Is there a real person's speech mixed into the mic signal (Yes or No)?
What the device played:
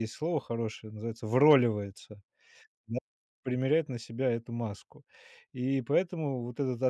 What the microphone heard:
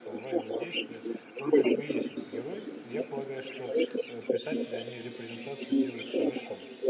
Yes